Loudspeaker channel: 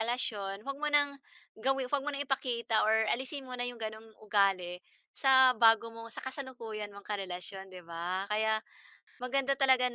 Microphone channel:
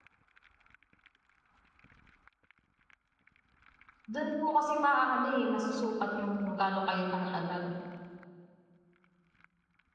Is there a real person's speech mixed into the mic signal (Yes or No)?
Yes